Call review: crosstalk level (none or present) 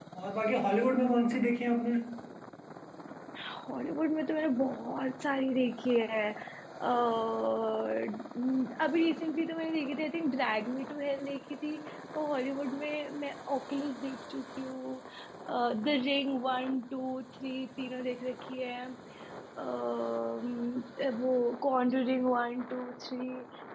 none